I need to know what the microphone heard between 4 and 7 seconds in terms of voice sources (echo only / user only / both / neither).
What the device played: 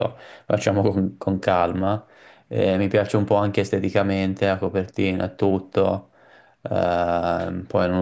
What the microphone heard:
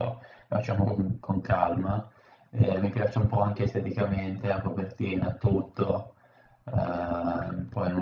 echo only